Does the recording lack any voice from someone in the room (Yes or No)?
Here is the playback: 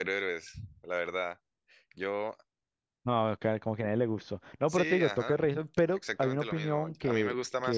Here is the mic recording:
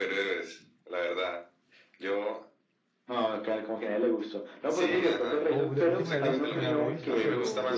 No